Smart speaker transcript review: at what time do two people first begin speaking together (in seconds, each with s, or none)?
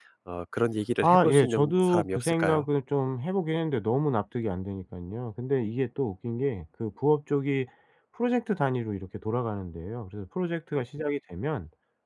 1.0 s